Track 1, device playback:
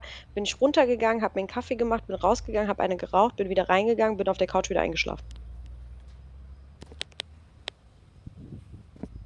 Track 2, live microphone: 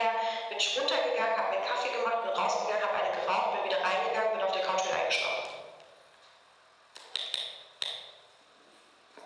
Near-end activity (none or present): none